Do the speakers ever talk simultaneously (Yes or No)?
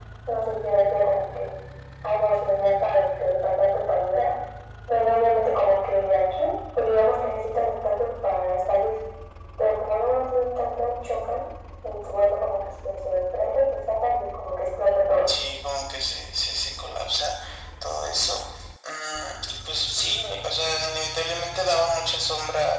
No